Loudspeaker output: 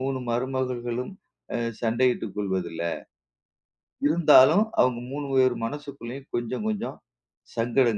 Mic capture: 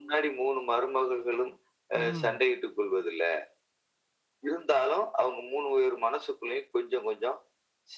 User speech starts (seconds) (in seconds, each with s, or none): 1.9 s